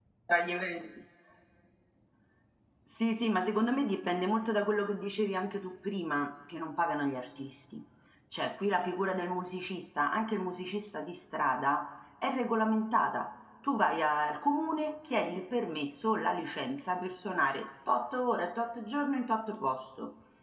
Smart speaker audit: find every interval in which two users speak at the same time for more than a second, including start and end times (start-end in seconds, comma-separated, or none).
none